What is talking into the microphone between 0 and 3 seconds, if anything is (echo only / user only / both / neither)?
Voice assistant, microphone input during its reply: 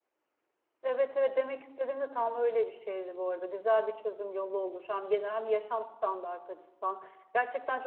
user only